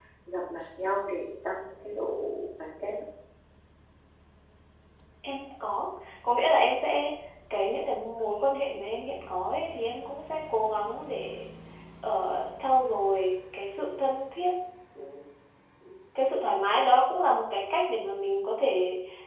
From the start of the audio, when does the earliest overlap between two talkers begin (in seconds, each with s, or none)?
none